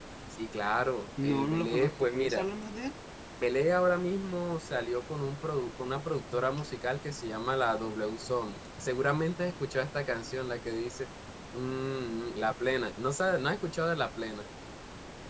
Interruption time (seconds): 1 s

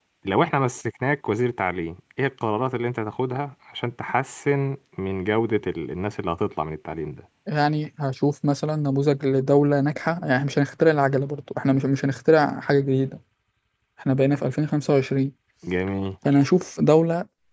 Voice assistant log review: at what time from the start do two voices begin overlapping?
none

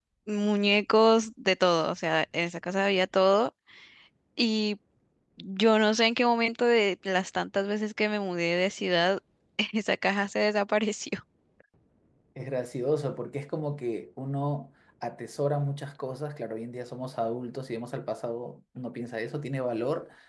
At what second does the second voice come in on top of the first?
none

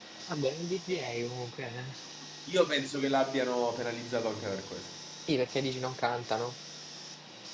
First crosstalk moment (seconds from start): none

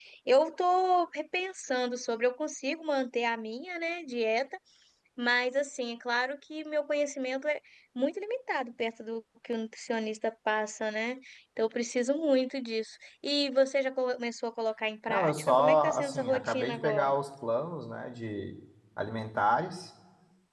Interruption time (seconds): 15 s

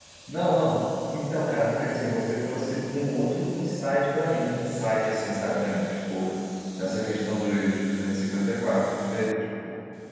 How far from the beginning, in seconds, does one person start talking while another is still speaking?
none

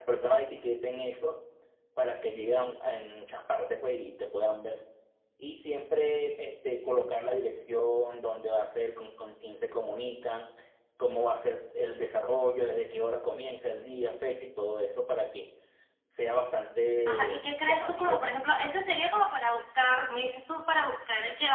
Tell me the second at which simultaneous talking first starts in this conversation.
17 s

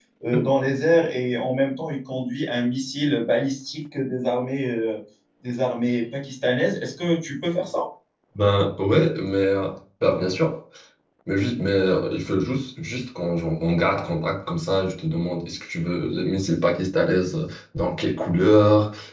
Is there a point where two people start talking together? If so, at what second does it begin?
none

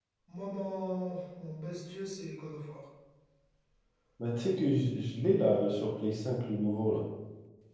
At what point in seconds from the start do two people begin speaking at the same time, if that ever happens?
none

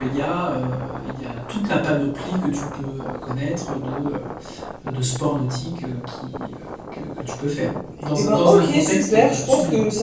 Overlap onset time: 8 s

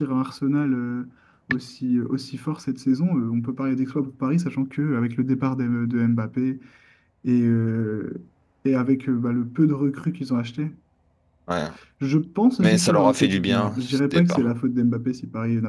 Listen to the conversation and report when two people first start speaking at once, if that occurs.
13 s

